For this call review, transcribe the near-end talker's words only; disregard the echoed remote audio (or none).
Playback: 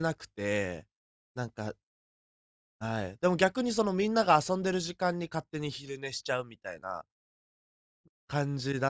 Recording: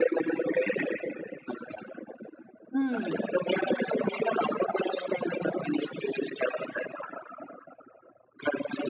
うん。